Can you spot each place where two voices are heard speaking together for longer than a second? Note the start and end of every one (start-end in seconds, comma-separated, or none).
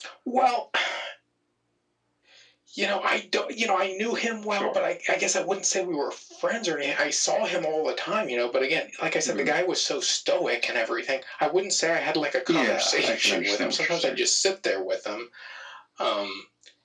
12.5-14.2